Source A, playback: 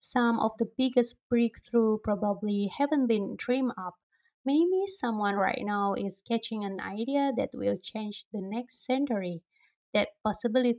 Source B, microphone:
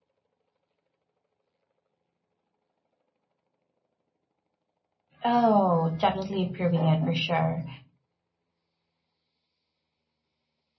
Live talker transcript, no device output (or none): Oh, definitely improving it for sure.